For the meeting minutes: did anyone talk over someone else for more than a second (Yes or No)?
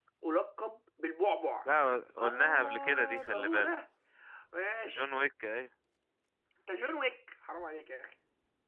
Yes